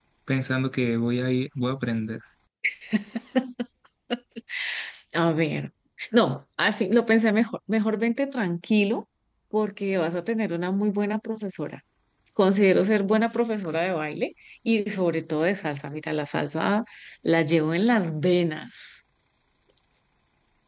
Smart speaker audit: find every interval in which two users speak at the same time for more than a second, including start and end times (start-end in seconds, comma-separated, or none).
none